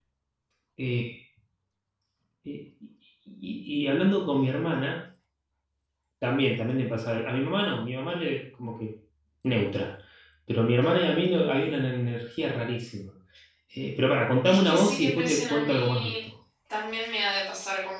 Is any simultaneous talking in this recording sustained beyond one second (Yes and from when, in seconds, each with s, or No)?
Yes, from 14.4 s